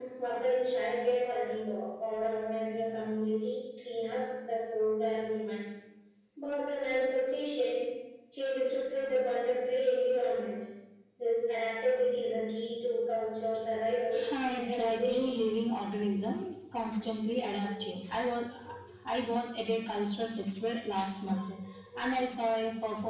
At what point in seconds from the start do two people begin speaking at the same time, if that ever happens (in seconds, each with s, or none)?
14.1 s